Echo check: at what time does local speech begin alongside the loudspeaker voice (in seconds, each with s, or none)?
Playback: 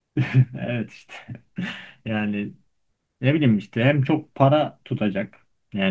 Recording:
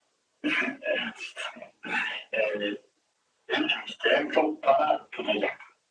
none